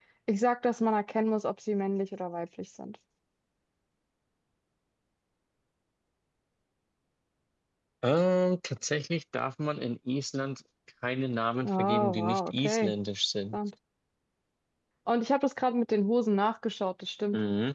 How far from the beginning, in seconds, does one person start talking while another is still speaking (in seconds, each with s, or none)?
11.6 s